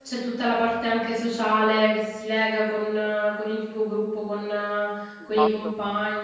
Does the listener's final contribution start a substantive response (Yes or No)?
Yes